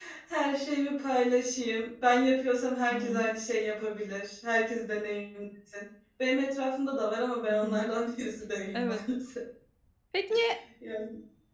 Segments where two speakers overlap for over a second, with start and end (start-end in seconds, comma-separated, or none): none